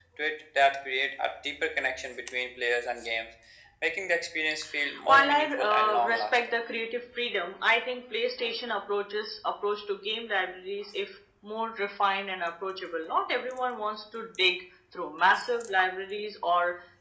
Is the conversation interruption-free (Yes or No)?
No